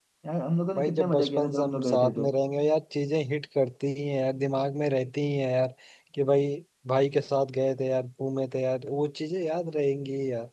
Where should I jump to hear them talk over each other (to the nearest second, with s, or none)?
1 s